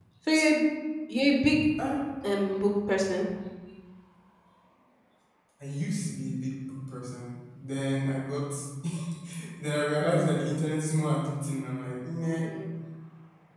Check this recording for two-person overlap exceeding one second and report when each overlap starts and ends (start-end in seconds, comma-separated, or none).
none